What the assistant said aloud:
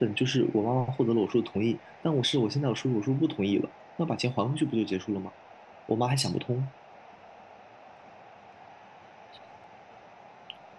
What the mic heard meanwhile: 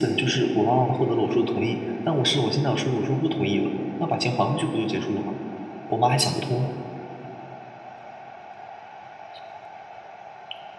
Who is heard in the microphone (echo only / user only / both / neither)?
echo only